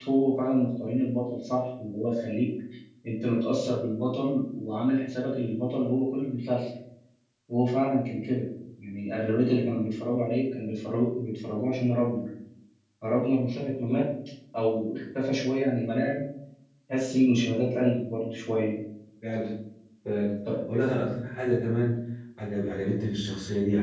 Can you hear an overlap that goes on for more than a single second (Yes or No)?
No